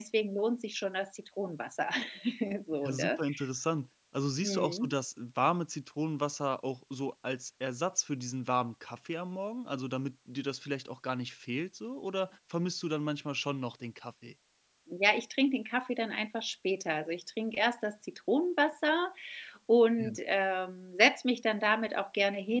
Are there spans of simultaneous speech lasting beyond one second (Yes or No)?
No